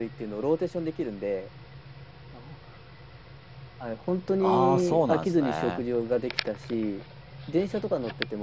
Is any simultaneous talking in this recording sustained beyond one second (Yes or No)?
Yes